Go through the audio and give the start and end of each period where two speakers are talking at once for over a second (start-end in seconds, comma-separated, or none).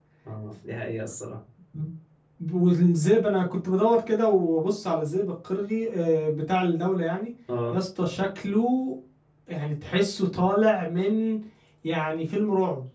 none